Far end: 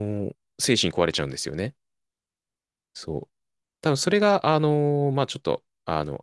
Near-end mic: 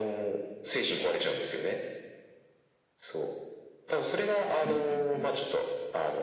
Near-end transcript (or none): うんうんうん。